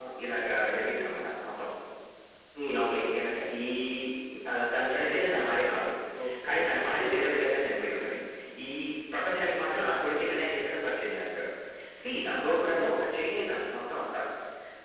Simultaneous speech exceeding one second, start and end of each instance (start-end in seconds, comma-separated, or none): none